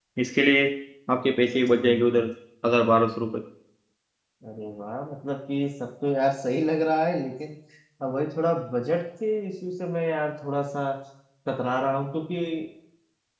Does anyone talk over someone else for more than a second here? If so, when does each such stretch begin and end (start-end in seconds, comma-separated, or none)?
none